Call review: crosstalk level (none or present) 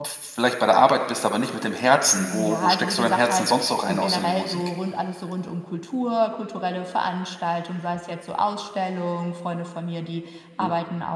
present